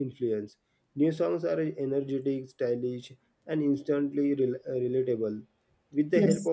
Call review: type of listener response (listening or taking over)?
listening